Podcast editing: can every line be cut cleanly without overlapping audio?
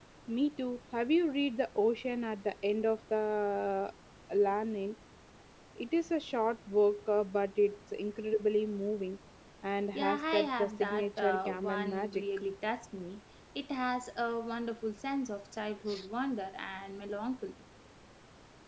No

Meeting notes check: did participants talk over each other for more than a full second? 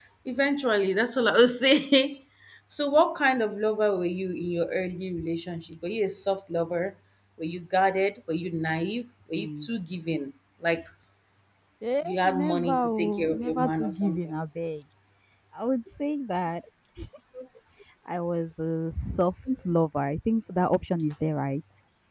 Yes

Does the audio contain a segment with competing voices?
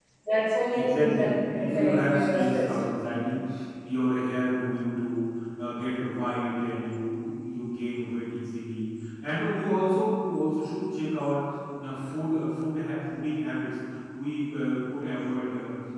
Yes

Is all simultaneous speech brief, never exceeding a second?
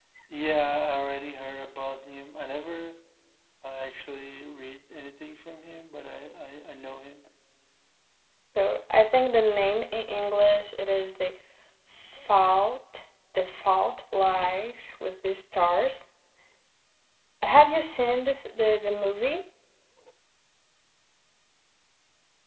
Yes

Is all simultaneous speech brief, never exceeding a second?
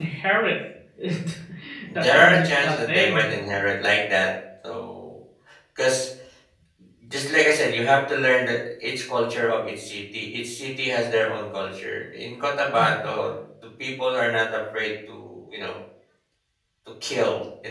No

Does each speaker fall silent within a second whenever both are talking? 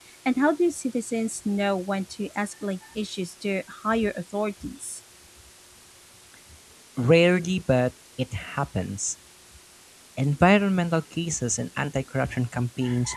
Yes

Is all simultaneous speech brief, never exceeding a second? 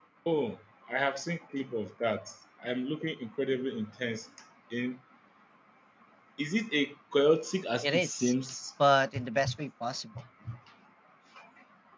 Yes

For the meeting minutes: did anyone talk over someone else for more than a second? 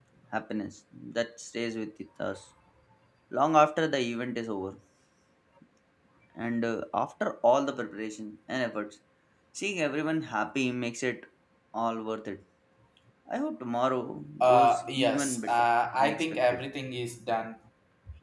Yes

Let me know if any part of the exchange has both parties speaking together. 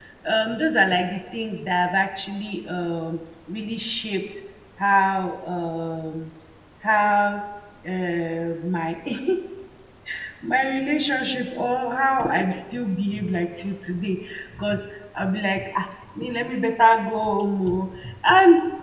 No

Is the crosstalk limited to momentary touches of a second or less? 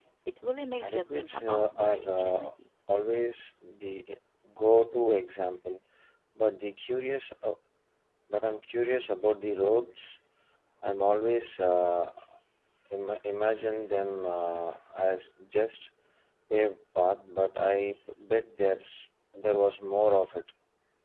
No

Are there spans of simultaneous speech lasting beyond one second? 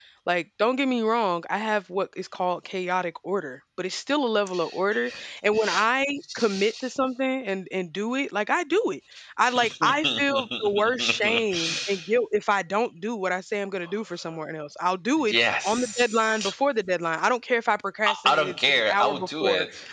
Yes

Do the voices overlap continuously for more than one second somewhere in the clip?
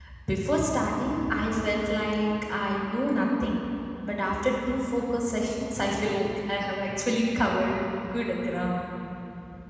No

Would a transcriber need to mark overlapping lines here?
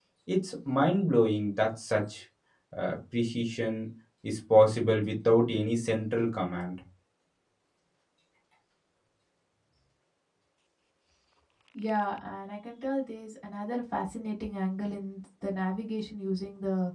No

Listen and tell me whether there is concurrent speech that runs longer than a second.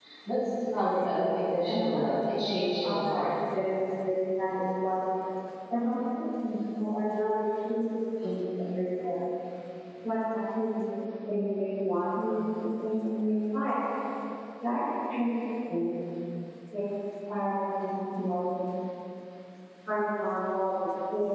Yes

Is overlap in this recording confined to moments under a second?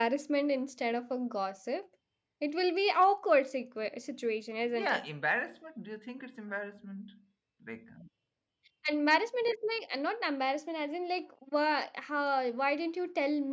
Yes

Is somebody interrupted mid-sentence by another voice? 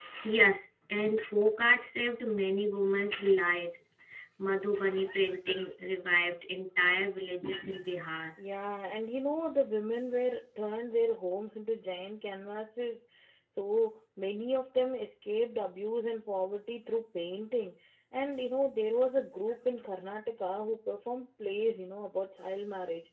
No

